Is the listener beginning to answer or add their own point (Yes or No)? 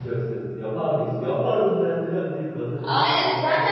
Yes